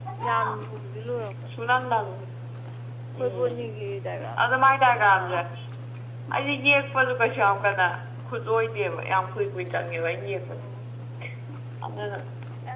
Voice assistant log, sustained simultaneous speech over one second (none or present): none